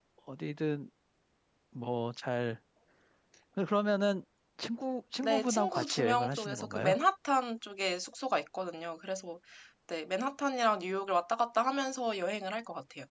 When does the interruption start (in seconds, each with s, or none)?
5.2 s